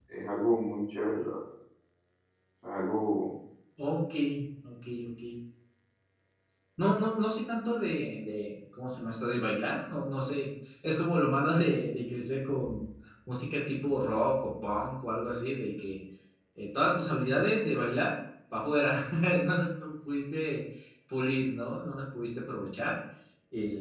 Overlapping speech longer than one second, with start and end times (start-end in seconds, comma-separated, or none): none